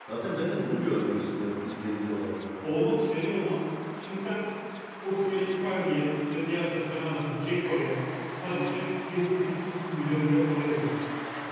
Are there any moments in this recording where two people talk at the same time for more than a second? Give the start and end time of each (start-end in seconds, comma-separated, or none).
none